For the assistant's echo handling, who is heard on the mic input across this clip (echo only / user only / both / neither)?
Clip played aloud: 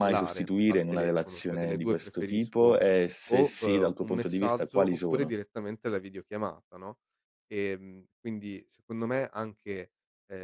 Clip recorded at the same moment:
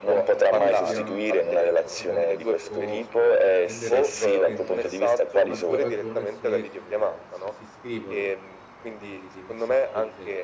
both